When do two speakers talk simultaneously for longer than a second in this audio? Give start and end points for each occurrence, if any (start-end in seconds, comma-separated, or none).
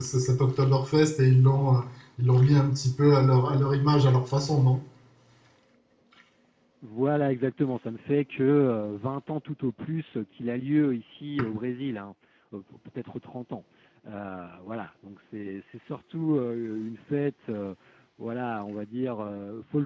none